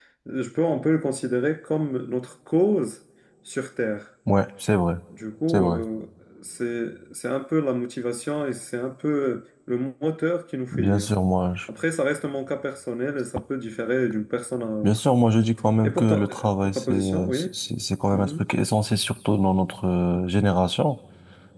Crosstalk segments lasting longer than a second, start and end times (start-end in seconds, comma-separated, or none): 15.8-17.5